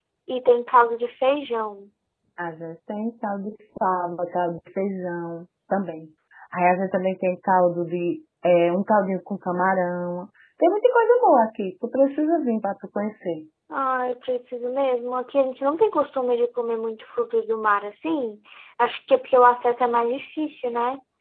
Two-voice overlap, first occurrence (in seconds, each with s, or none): none